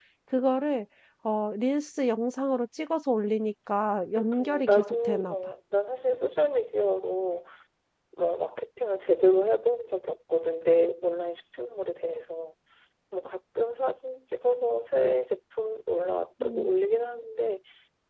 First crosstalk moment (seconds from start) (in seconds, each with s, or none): 4.2 s